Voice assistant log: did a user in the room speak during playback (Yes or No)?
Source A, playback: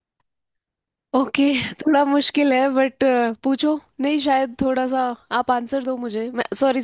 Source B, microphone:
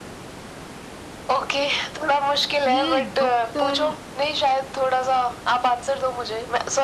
Yes